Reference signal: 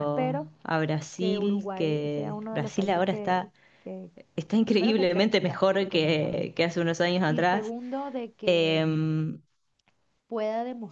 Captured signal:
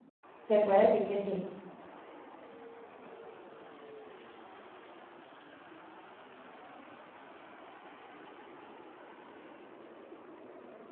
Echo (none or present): none